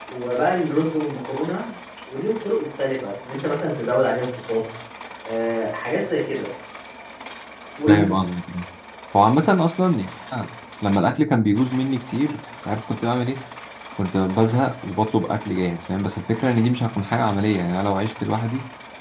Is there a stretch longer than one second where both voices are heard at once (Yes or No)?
No